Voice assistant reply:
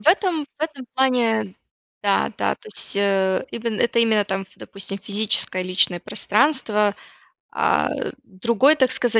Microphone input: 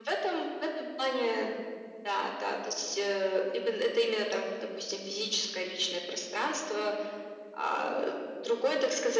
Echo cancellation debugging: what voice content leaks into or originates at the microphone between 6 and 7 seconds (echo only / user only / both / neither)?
echo only